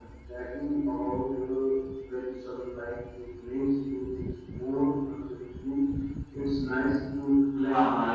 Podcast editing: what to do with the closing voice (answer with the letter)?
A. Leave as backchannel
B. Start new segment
B